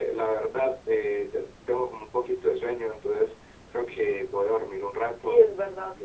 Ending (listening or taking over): taking over